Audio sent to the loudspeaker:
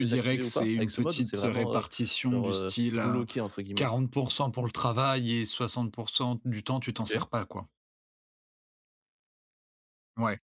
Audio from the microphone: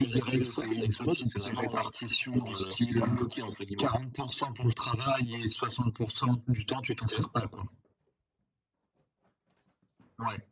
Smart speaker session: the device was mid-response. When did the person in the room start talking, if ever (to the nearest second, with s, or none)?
none